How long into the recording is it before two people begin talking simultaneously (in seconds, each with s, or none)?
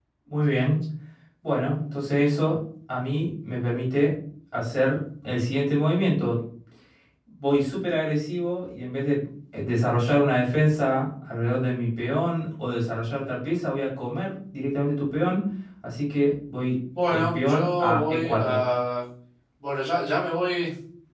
16.9 s